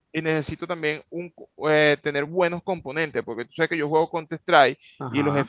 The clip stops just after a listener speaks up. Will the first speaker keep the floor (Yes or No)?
Yes